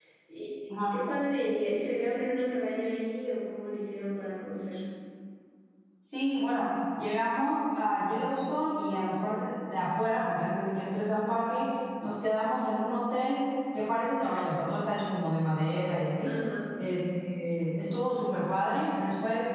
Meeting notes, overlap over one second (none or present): none